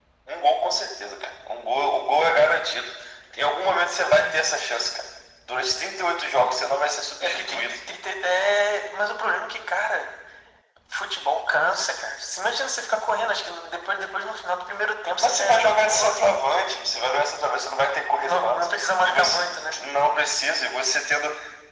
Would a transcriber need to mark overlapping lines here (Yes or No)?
Yes